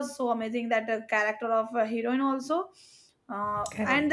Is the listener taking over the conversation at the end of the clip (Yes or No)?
No